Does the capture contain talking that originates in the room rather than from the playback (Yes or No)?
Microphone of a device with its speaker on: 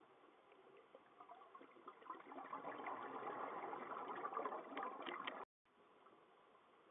No